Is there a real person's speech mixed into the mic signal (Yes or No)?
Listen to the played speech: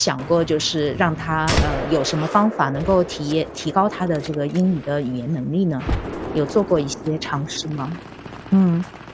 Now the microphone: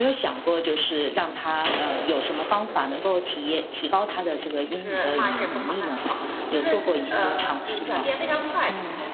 Yes